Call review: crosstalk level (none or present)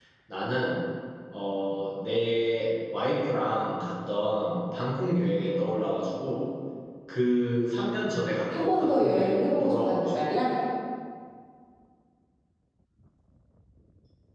present